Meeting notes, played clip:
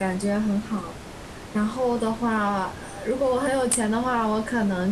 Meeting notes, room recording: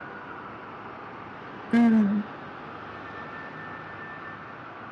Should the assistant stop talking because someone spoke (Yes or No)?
Yes